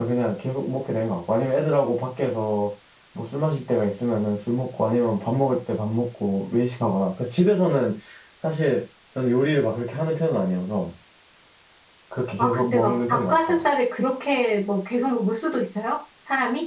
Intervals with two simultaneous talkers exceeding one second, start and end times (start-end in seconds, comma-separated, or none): 12.4-13.6